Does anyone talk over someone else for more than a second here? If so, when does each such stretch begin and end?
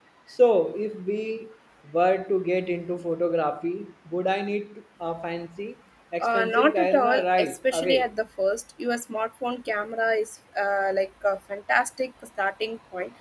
6.2-8.1

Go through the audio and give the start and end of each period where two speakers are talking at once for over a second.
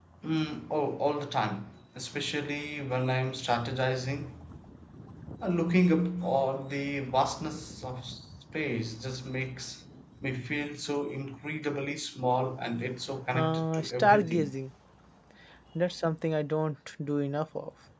13.3-14.5

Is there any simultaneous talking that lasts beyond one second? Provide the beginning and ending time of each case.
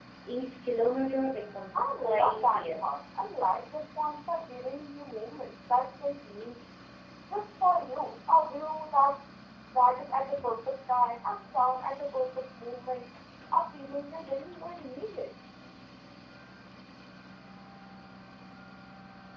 1.7-3.0

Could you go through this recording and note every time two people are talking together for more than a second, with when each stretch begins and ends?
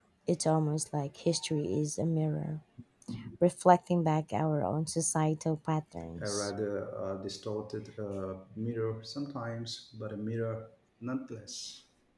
none

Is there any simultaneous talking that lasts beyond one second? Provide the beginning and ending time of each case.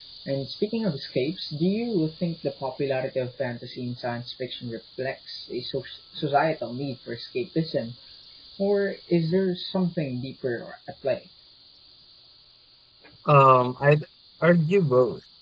none

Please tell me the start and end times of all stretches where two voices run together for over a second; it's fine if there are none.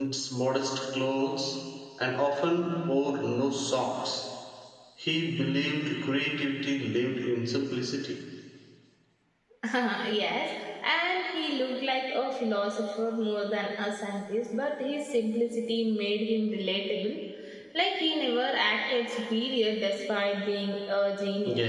none

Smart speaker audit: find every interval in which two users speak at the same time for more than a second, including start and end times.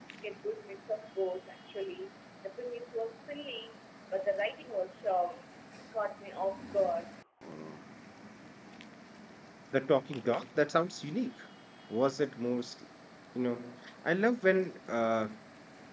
none

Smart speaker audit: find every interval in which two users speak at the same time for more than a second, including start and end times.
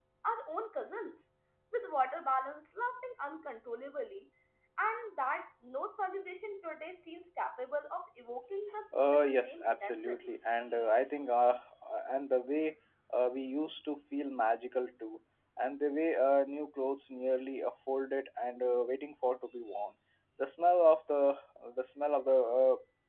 8.9-10.3

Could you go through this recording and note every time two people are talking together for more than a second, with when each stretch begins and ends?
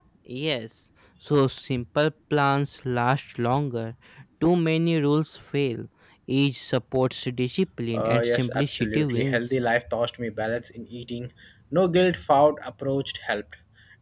7.9-9.4

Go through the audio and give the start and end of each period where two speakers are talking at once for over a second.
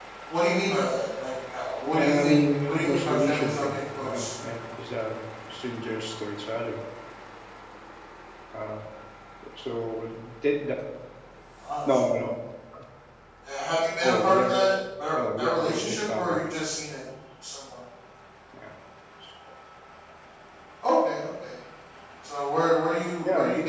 1.9-4.3, 15.2-16.5

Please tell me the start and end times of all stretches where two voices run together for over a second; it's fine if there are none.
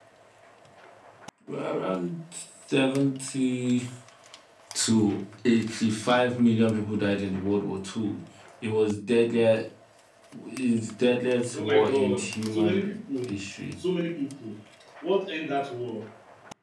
11.5-12.9

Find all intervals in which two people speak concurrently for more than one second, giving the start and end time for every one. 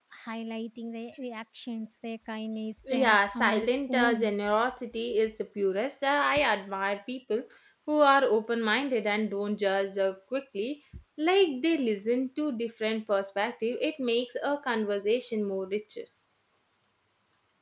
2.9-4.3

